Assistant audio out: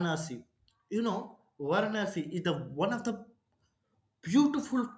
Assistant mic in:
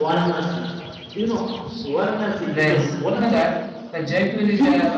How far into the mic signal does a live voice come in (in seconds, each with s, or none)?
2.4 s